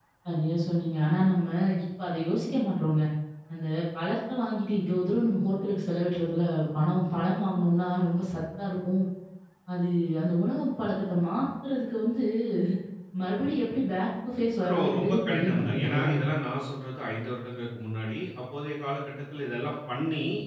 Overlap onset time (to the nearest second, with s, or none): 15 s